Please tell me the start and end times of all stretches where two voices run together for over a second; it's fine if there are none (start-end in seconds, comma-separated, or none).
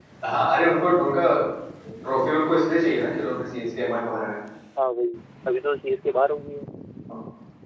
none